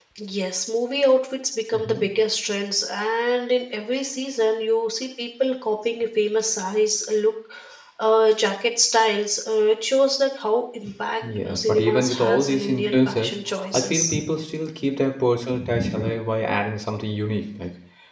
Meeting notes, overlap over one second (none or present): present